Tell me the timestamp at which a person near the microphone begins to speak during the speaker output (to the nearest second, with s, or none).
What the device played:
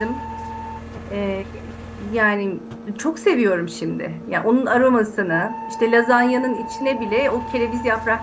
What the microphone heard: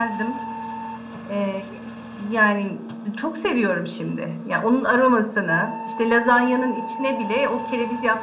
none